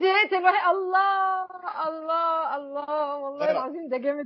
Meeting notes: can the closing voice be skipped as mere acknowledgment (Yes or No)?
Yes